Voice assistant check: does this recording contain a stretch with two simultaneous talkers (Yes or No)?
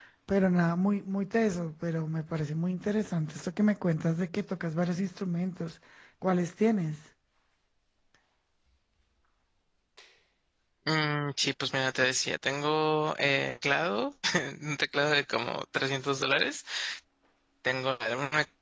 No